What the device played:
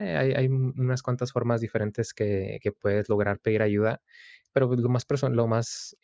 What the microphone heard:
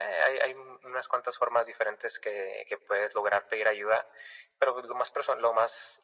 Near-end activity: none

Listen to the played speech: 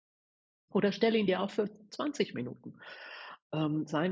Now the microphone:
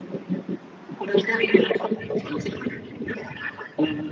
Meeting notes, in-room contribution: none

